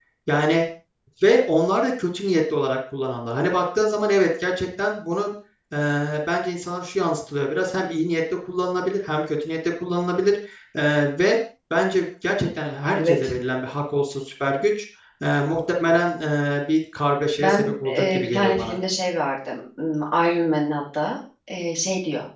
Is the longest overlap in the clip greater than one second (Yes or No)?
Yes